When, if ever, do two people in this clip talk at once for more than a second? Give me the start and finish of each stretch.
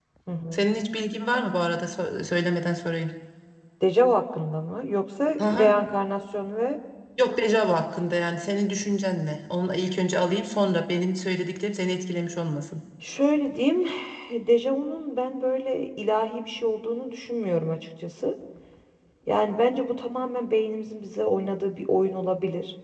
none

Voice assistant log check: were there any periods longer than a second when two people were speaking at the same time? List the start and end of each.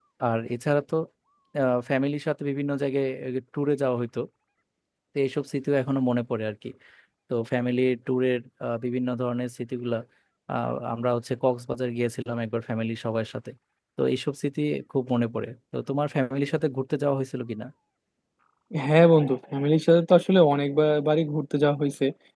none

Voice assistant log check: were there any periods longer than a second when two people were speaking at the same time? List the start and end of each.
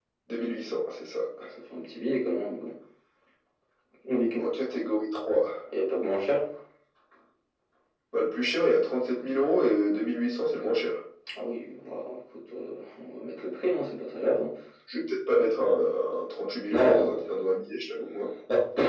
none

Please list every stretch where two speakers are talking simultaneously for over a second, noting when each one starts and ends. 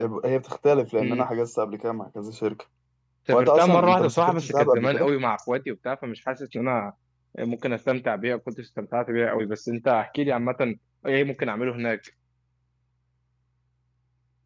3.3-5.1

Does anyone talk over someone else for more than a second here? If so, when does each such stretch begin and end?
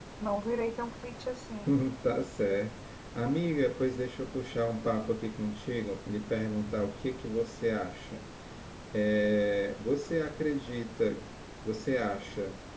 none

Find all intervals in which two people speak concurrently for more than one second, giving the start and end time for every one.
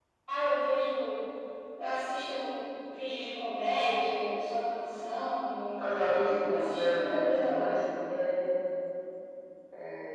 6.5-7.8

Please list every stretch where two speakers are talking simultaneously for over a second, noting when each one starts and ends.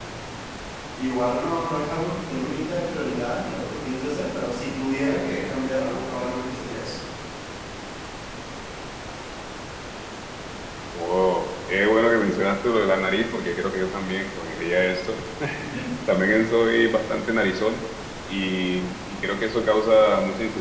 none

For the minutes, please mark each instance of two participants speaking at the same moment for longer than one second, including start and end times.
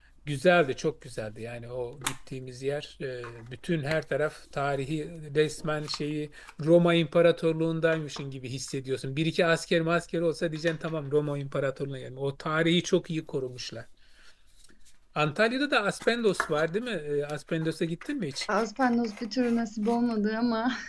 none

